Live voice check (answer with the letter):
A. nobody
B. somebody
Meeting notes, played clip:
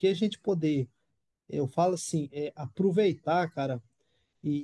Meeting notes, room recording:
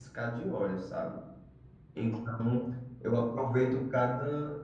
B